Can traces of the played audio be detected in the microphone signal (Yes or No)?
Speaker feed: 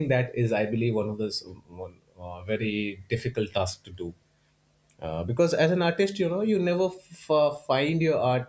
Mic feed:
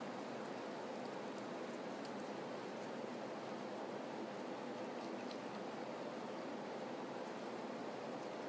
No